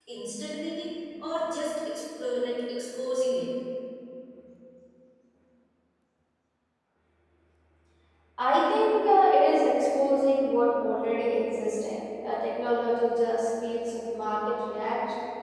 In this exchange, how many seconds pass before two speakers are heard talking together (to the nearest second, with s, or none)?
none